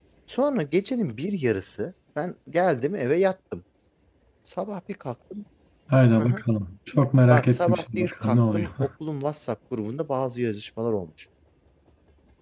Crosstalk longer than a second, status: present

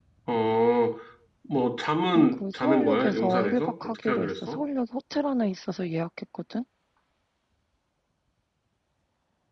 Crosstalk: present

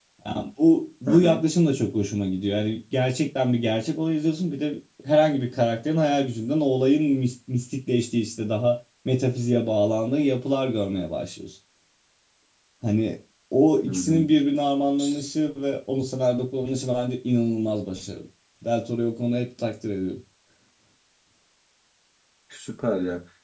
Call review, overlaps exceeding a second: none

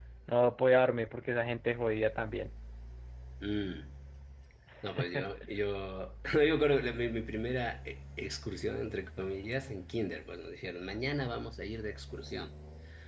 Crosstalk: none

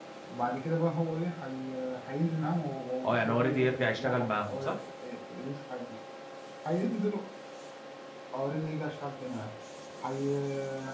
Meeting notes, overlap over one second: present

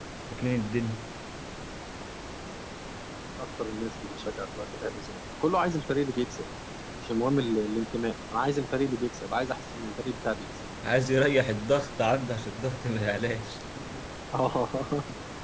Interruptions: none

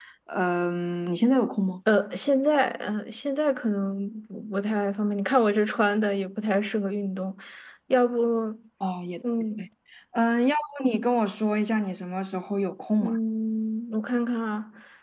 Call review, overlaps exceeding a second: none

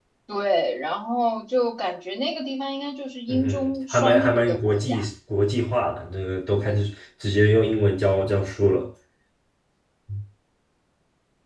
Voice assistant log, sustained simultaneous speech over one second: present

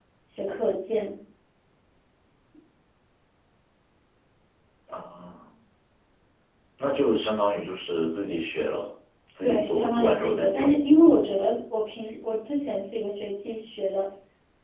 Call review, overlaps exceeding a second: present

